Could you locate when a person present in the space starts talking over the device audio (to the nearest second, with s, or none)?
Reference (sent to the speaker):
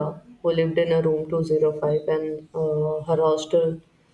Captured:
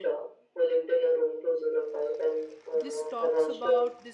3 s